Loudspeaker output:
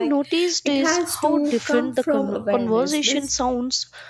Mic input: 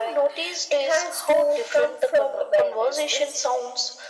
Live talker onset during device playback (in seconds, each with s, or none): none